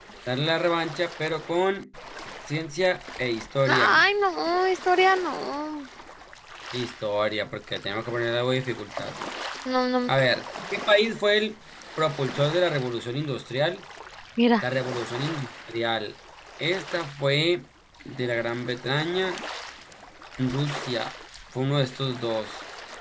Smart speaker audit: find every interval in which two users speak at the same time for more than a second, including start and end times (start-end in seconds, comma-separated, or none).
none